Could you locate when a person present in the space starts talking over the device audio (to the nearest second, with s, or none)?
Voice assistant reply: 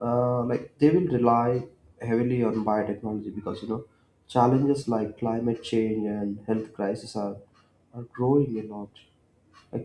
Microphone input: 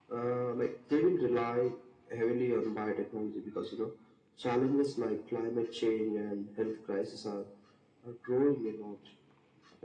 none